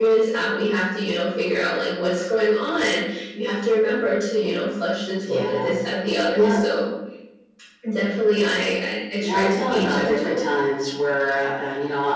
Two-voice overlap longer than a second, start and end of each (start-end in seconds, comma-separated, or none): 9.2-10.4